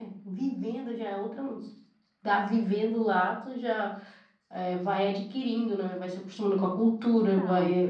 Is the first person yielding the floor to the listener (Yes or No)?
No